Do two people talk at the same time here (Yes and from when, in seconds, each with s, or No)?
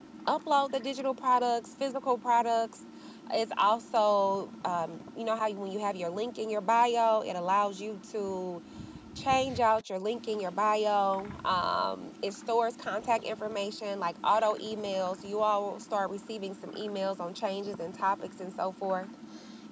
No